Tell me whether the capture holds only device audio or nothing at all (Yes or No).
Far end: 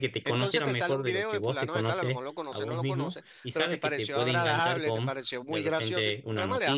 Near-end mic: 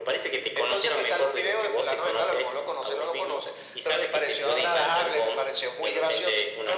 Yes